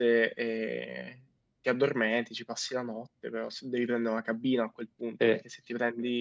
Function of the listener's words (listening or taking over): listening